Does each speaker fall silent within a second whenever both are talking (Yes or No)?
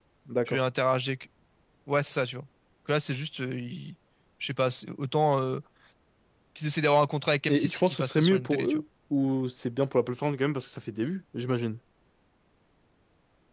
No